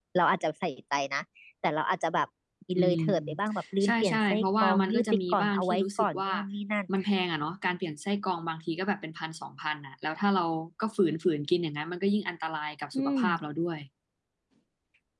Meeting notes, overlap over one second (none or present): present